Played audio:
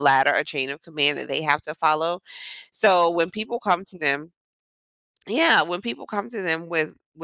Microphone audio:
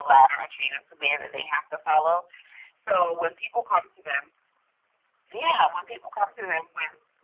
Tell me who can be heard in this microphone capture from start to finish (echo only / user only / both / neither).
echo only